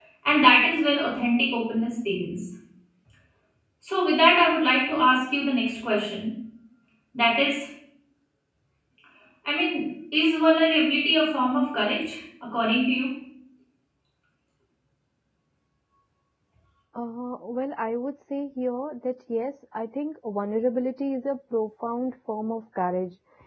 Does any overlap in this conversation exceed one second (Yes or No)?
No